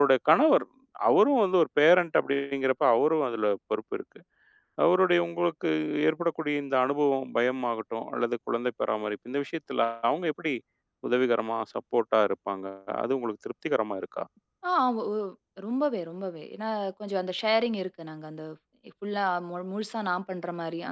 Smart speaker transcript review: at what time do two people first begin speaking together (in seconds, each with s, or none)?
none